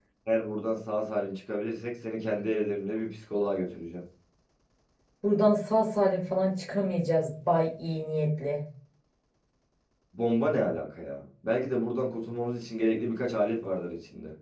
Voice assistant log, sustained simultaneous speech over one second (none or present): none